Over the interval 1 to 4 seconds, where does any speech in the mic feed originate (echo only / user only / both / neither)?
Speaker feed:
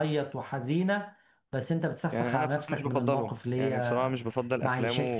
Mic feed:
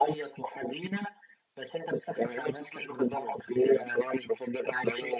echo only